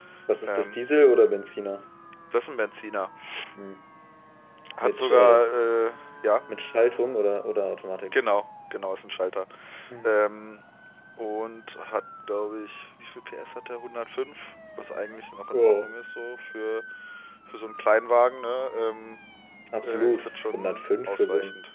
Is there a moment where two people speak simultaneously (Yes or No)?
Yes